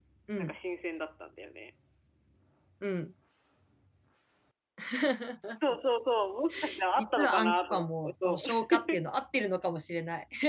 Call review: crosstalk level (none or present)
present